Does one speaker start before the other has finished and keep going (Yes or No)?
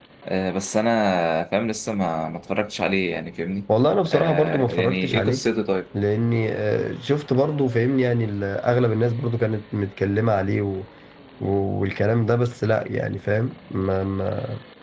Yes